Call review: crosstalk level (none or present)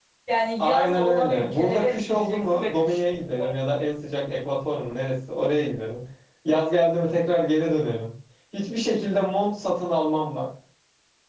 present